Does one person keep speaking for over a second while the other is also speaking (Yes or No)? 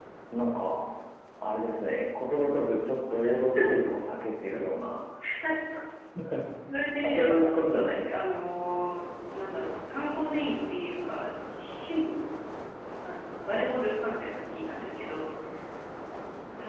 Yes